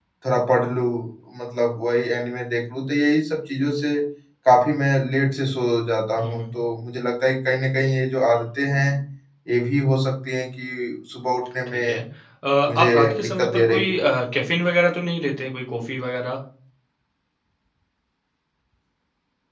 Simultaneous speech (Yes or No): Yes